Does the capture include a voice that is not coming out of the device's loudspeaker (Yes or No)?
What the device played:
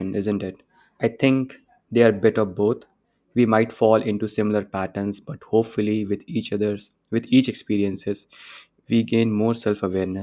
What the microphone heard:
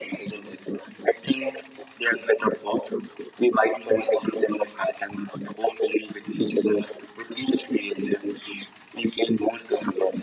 No